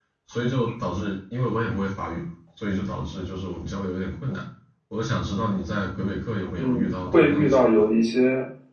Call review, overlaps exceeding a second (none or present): present